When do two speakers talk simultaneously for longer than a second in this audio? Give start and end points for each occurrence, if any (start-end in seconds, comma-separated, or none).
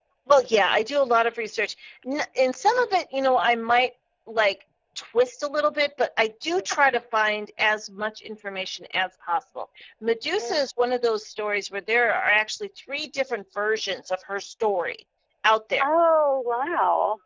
none